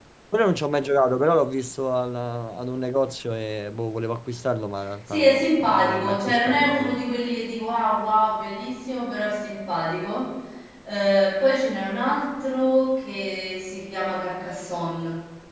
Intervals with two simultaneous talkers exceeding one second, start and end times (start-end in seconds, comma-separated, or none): 5.1-7.0